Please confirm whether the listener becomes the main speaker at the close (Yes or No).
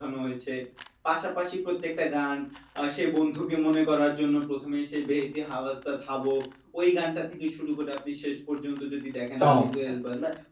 No